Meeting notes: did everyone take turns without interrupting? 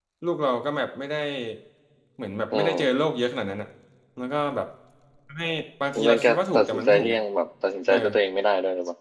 No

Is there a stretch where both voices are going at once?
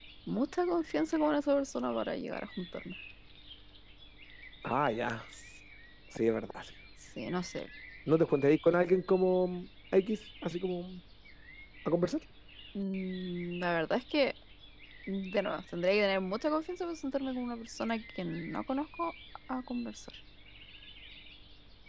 No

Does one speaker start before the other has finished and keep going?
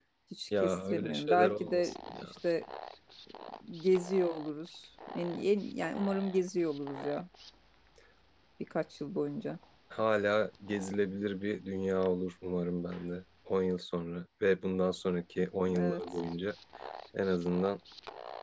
Yes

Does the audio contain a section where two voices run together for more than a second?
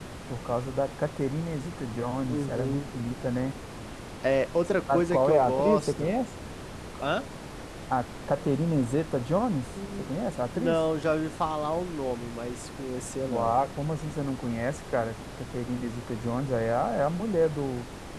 Yes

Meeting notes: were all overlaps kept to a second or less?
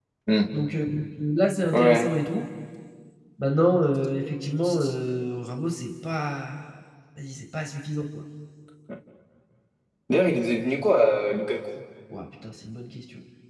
Yes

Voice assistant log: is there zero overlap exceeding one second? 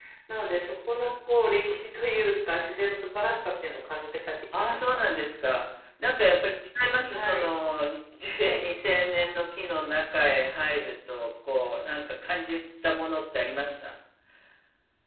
Yes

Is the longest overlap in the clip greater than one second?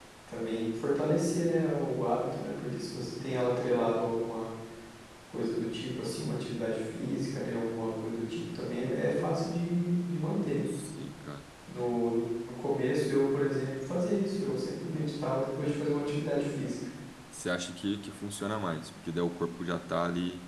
No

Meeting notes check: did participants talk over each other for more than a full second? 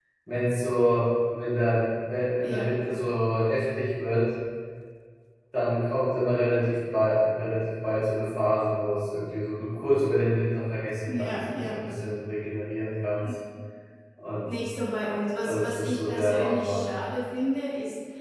Yes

